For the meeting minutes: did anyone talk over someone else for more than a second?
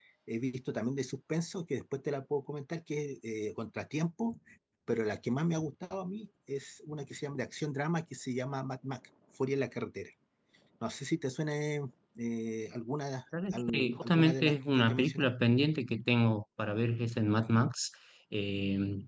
Yes, from 13.3 s

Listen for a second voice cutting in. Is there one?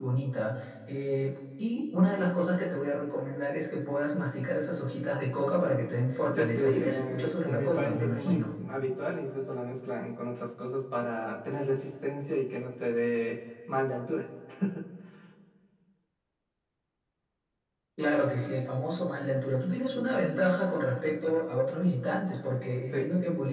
Yes, from 6.4 s

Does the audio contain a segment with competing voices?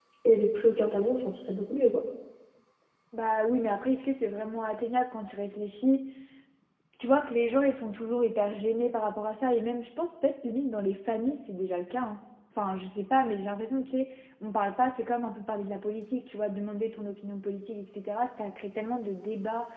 No

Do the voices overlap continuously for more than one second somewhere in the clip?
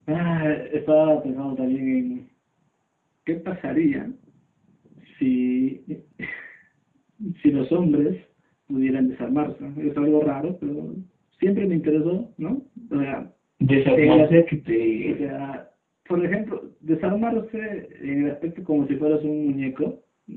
No

